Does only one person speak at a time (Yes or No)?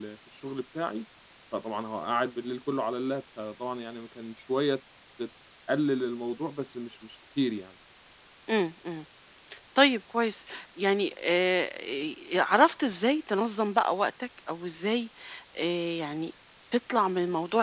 Yes